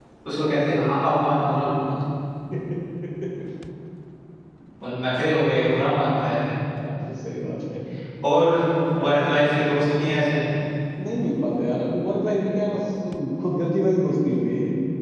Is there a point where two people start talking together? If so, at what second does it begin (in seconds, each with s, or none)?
none